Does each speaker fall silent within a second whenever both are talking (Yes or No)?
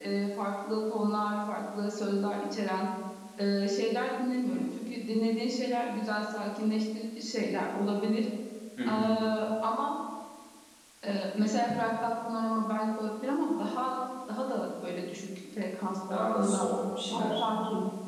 Yes